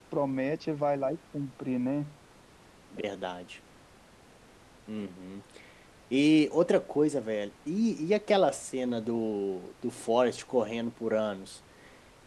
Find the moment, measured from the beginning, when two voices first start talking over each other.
none

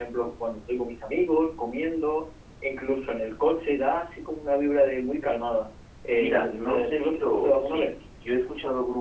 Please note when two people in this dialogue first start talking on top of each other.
6 s

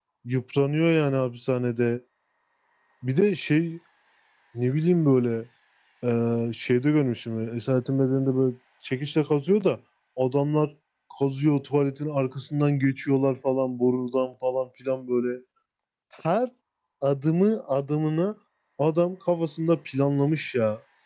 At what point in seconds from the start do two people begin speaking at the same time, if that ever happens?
none

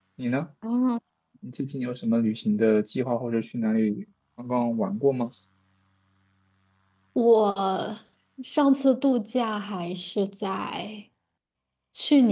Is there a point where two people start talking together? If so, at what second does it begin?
none

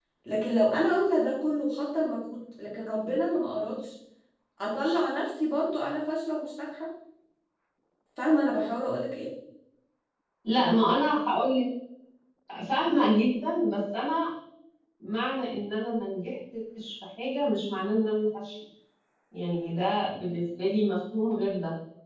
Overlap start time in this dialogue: none

